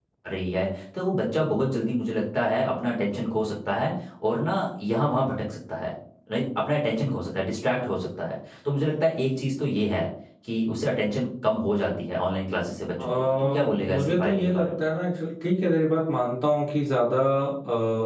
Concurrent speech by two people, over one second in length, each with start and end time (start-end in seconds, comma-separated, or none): 13.0-14.8